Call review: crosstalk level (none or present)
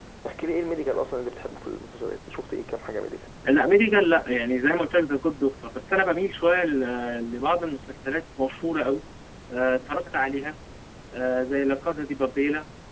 none